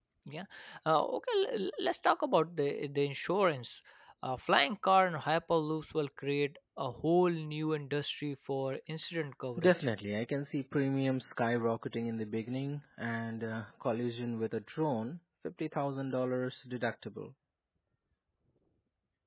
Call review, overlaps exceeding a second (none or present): none